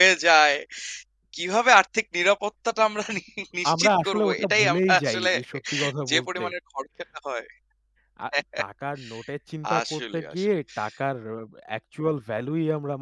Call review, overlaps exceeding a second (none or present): present